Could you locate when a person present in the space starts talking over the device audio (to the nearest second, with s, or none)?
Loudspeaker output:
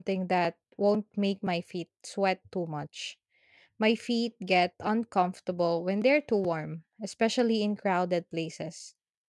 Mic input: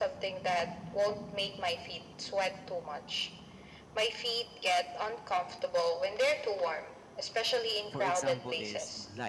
8 s